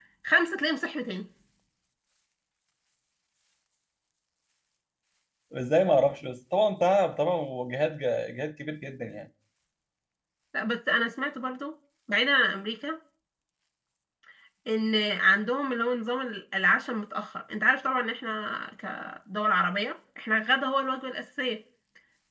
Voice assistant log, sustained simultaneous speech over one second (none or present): none